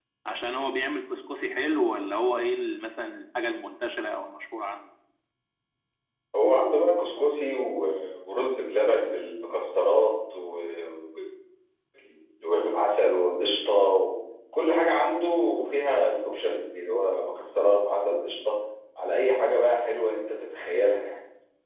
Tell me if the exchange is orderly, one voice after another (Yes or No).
Yes